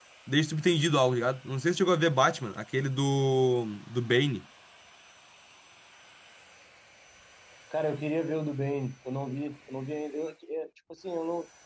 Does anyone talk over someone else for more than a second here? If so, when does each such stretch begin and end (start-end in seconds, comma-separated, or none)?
none